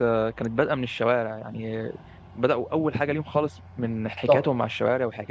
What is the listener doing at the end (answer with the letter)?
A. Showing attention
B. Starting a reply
A